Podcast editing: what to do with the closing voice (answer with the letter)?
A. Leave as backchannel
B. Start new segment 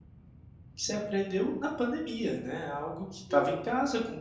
A